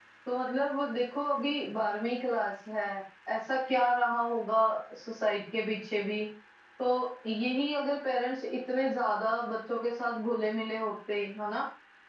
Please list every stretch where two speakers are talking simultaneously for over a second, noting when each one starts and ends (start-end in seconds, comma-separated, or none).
none